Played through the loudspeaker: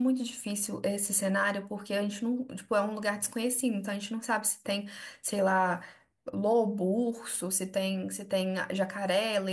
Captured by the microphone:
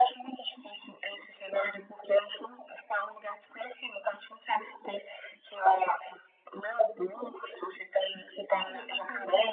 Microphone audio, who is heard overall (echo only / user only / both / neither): both